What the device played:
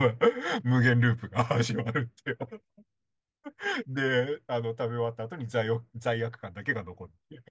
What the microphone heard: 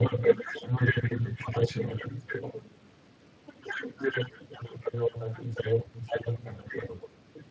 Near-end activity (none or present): none